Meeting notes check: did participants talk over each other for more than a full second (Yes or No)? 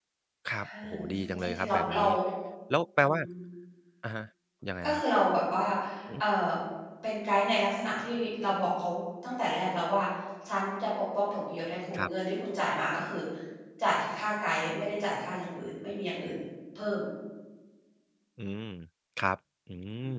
Yes